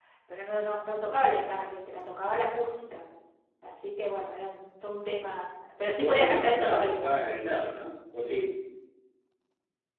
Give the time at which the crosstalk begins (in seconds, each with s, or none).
6.0 s